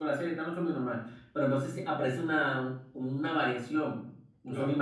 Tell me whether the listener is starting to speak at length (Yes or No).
No